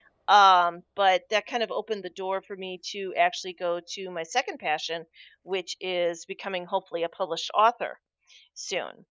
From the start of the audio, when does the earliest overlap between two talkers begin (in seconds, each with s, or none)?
none